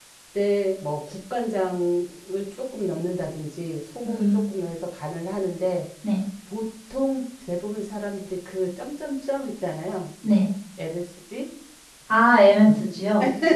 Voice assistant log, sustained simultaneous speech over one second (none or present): none